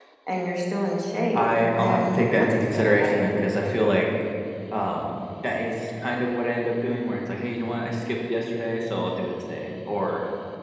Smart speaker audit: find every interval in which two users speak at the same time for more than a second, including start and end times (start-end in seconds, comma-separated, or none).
1.3-3.3